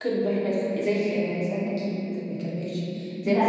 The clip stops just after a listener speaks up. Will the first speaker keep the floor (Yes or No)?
Yes